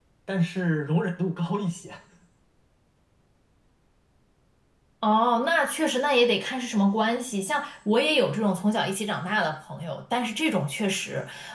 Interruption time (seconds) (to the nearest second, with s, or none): none